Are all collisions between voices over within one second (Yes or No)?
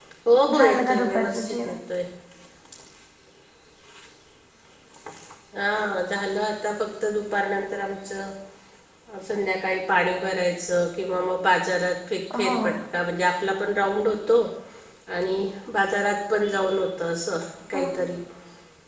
No